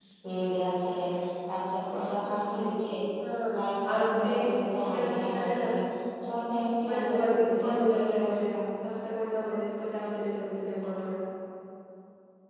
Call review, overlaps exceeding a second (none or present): present